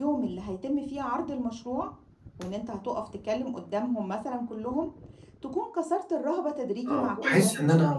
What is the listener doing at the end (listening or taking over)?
taking over